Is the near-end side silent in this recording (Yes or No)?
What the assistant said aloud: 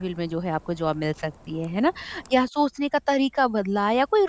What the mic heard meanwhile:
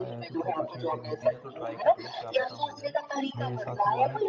No